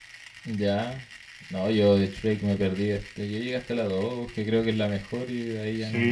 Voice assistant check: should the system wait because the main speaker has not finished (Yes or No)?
No